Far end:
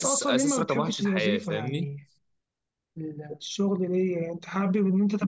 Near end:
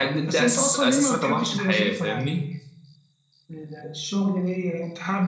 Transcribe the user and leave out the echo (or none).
none